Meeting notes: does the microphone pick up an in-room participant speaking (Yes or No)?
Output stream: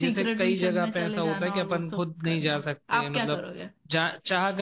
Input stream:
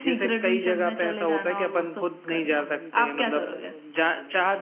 Yes